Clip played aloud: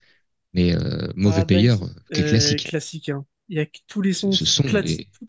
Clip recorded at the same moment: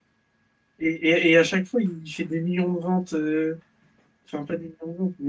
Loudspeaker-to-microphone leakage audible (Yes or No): No